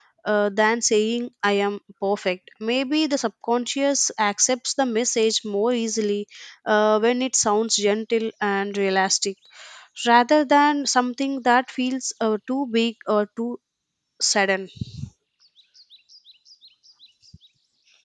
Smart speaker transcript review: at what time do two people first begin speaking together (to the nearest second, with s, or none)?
none